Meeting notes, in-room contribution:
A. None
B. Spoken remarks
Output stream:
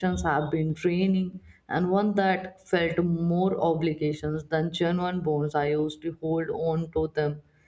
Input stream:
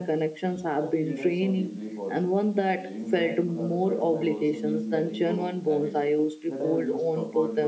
B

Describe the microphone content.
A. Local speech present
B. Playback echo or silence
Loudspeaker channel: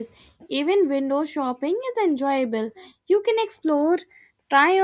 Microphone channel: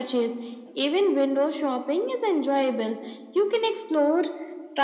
B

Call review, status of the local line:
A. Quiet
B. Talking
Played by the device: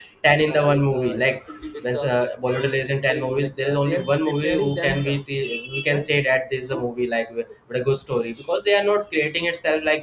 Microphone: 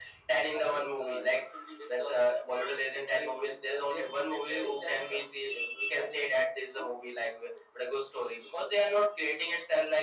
A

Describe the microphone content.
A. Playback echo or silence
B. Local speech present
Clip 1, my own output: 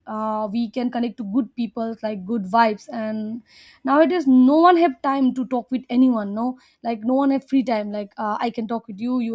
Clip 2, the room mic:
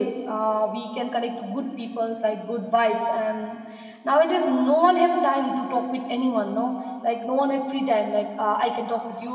A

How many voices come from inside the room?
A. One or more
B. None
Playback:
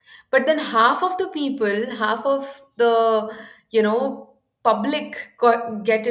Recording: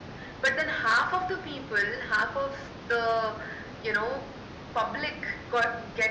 B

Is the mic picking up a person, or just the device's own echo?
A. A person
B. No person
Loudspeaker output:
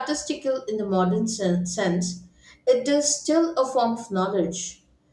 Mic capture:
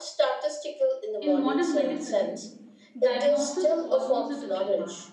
A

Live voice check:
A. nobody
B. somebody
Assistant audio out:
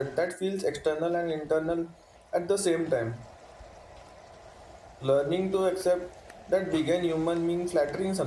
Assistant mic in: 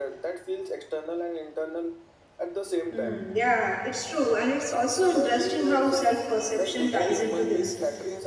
B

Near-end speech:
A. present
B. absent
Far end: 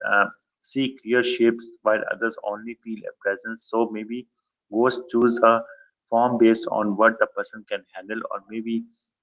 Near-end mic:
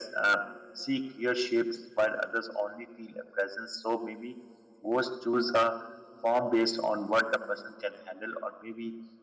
B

